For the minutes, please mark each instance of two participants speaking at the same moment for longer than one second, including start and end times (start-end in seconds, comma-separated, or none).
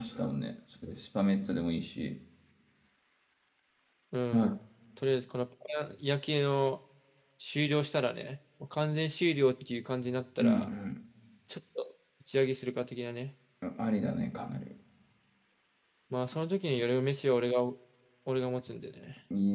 none